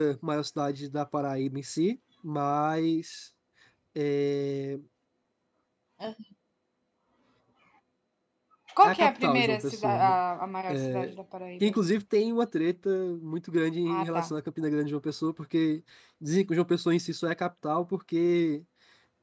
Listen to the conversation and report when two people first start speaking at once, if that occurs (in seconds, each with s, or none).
8.8 s